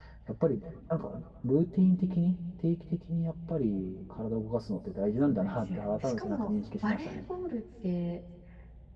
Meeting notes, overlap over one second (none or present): present